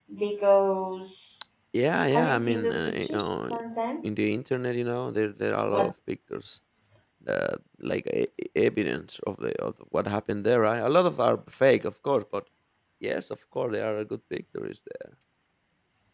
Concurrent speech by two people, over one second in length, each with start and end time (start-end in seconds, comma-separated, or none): 2.1-3.5